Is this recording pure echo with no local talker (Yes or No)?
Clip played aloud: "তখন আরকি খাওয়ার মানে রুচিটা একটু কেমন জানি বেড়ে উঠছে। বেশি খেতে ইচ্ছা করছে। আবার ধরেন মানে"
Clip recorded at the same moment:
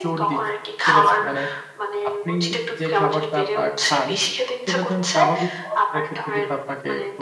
No